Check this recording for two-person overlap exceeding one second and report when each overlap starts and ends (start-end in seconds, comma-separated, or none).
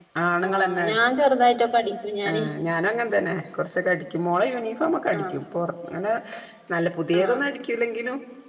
none